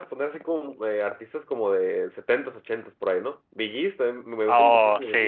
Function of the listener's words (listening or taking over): taking over